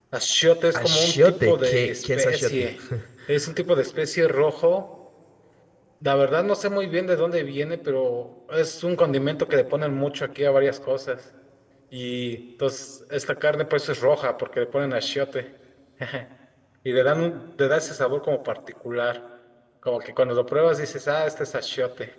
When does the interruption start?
0.7 s

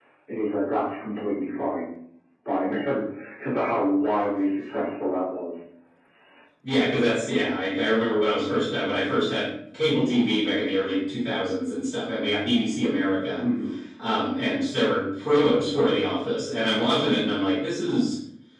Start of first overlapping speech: none

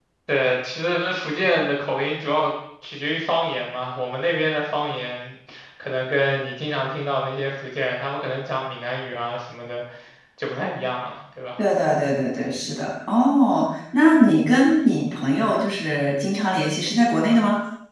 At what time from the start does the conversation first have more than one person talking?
none

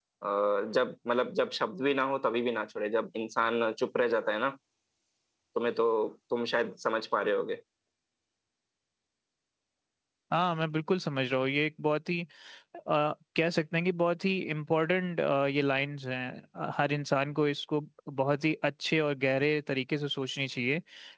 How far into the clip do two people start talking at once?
none

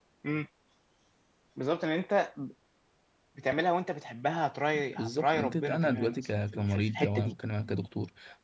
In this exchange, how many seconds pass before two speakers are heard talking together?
5.0 s

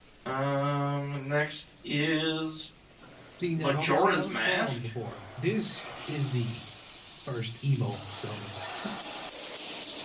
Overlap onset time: 3.6 s

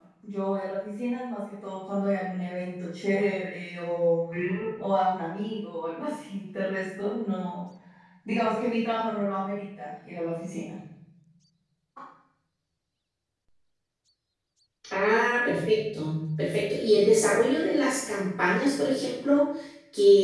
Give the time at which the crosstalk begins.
none

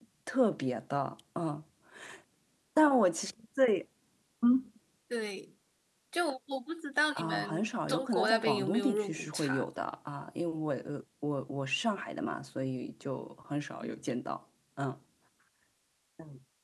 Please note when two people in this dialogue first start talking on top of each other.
7.2 s

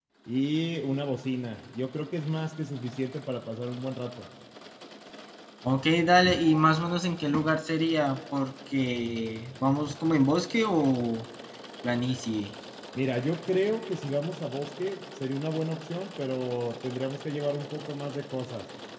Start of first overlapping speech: none

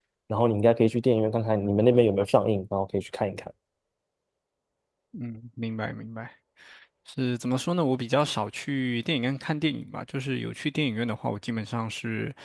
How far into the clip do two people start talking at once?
none

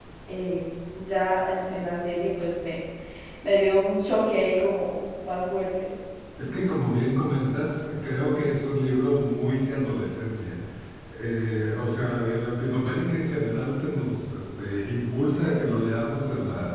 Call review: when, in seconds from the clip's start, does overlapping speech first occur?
none

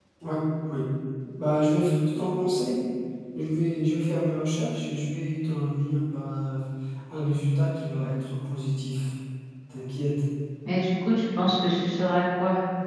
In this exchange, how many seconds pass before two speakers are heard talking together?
none

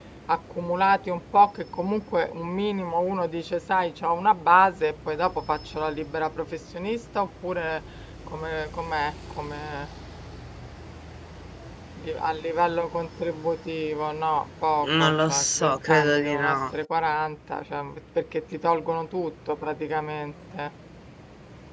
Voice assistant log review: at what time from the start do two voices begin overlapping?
14.8 s

